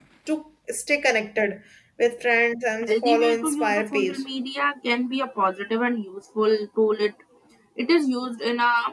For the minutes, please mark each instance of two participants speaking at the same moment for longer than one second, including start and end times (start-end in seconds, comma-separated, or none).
2.9-4.2